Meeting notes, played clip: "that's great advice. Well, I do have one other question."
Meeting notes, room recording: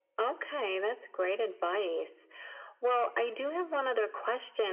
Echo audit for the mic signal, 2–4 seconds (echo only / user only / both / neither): echo only